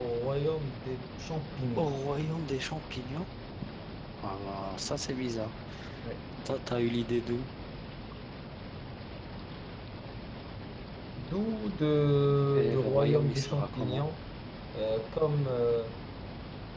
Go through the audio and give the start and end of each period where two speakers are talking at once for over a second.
12.5-14.0

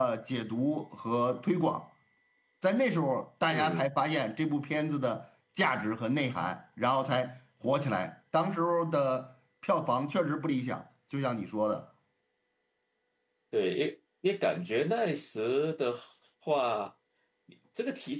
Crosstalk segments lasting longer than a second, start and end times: none

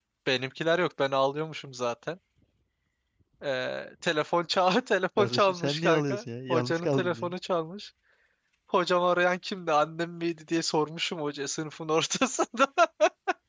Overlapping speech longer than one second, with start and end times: 5.2-7.3

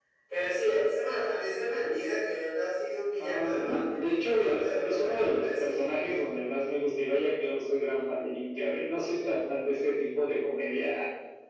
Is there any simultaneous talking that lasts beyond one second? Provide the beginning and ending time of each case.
3.2-6.0

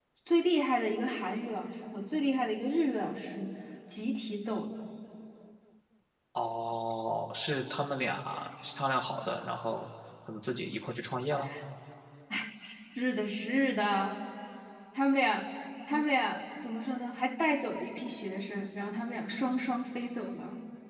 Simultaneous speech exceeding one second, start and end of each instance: none

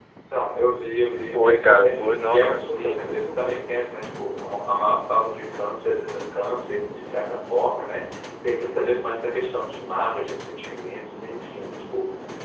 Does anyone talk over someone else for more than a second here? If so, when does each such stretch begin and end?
1.3-3.4

